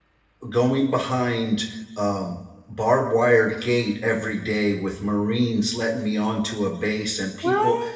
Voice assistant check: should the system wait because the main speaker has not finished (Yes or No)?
Yes